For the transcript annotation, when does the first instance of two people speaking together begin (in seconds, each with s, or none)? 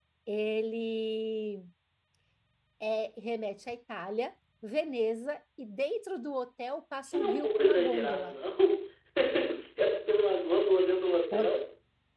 7.0 s